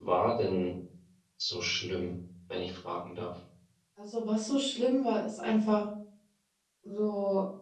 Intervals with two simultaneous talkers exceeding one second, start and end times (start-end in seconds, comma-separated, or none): none